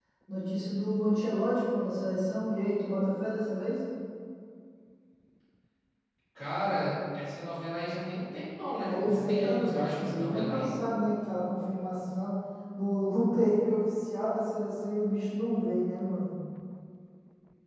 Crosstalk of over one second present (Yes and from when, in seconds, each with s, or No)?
Yes, from 8.8 s